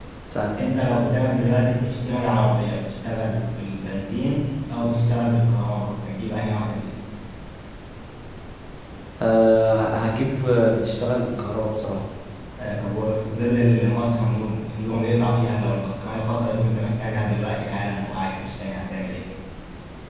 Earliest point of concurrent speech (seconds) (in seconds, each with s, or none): none